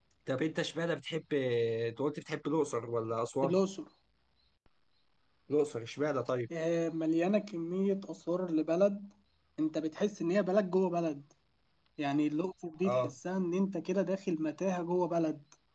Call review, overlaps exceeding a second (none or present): none